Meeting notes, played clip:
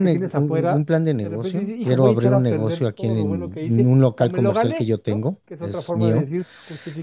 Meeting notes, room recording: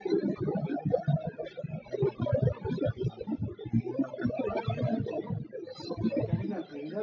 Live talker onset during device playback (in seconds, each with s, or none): 4.4 s